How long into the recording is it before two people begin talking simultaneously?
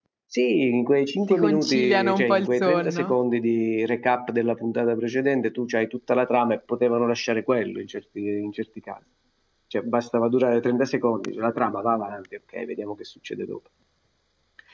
1.3 s

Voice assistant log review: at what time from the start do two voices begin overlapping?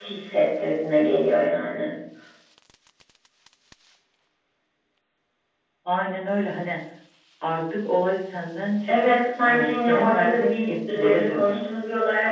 8.9 s

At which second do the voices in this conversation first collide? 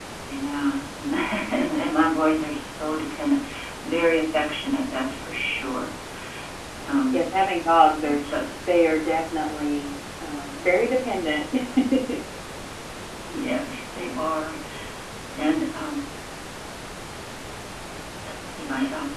none

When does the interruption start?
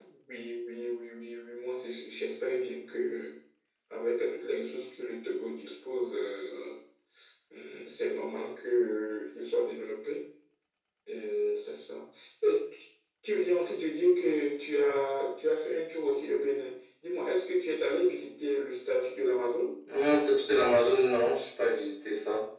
none

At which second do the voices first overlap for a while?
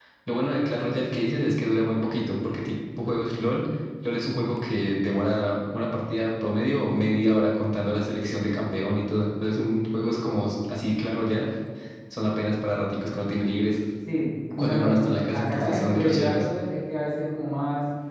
14.6 s

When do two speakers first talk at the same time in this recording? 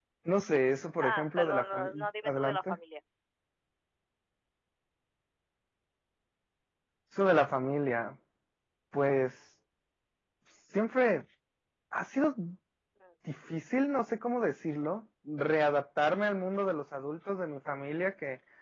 1.0 s

